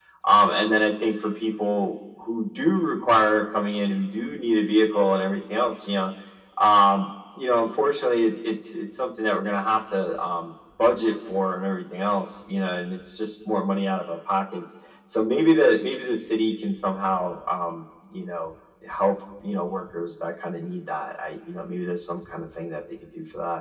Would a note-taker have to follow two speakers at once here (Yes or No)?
No